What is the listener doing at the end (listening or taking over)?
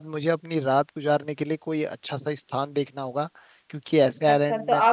taking over